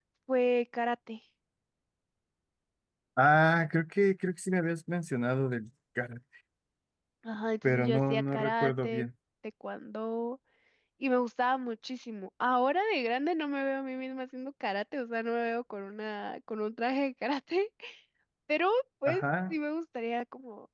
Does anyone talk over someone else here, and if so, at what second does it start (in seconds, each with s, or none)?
7.7 s